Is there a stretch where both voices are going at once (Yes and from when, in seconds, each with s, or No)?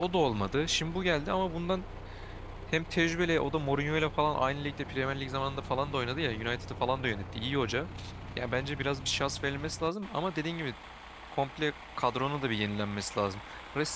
No